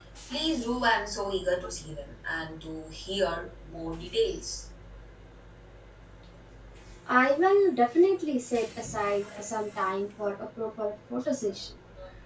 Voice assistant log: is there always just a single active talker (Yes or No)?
Yes